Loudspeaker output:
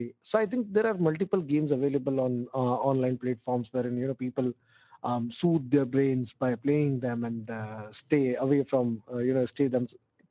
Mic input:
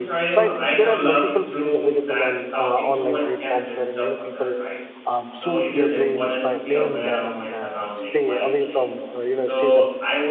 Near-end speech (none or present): present